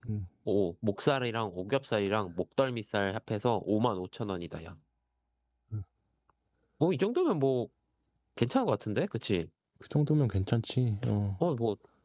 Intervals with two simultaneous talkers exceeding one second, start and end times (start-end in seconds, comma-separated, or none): none